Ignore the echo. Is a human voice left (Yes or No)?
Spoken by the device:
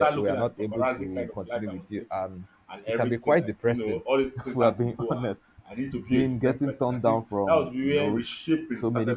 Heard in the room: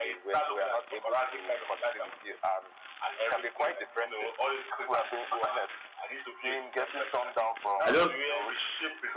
Yes